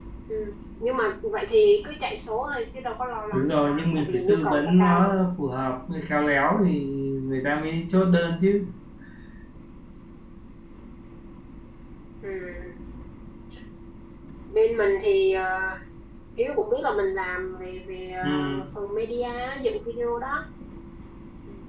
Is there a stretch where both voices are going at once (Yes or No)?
Yes